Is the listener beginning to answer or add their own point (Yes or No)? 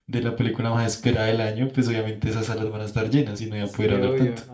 Yes